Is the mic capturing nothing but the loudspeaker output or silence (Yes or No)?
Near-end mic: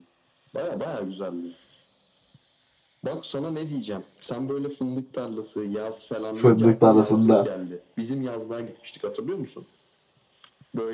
No